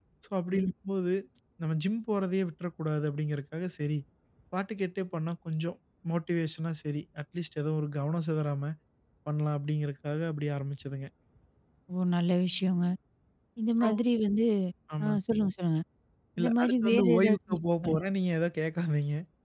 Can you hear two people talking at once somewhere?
Yes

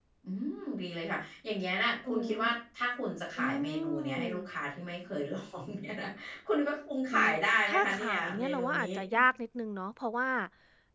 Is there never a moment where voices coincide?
No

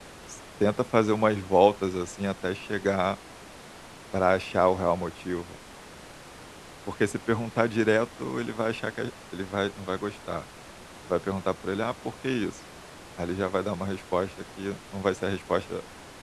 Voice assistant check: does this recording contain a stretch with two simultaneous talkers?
No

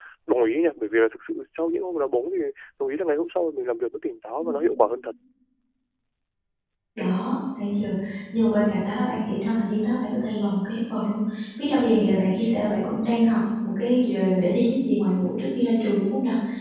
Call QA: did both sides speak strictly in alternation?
Yes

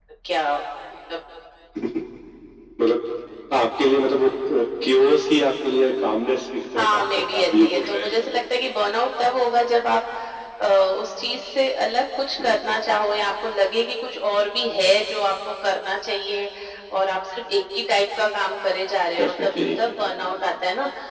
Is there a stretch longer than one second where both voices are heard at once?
Yes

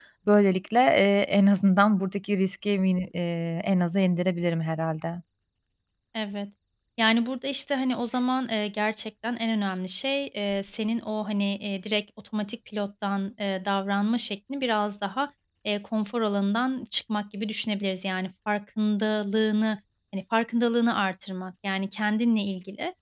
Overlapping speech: No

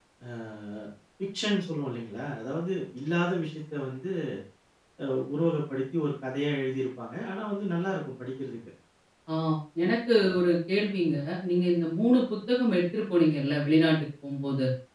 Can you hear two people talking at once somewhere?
No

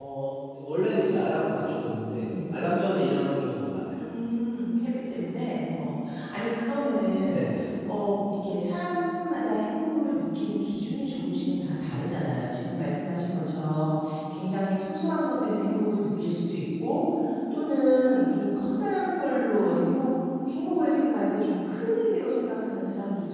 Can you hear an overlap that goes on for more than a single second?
No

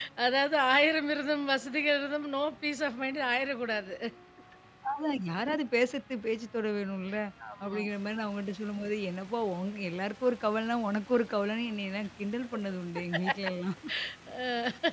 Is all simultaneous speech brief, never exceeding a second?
Yes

